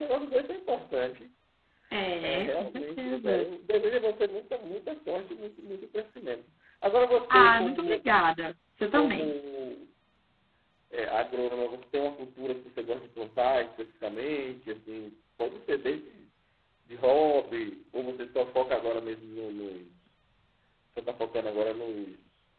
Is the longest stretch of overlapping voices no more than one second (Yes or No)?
No